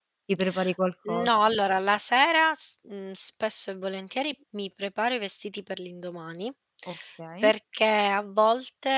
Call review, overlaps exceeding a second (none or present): none